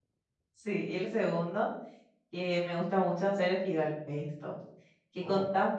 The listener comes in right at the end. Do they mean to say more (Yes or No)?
No